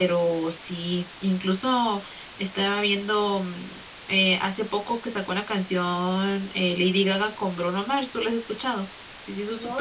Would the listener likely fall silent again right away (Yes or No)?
No